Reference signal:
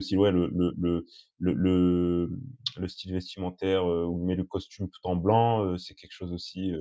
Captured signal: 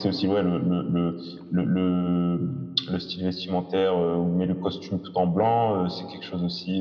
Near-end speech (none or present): none